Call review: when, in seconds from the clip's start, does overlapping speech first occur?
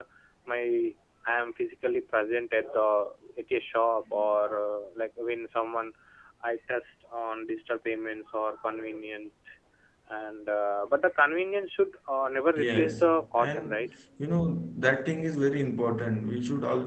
12.6 s

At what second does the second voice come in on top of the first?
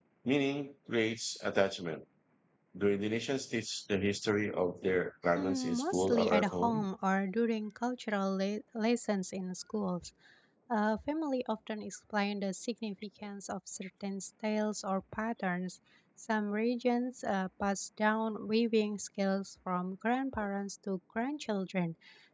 5.4 s

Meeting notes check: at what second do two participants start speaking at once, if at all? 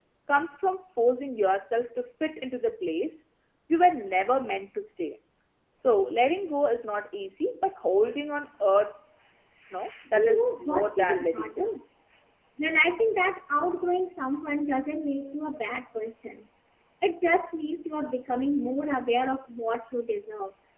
10.1 s

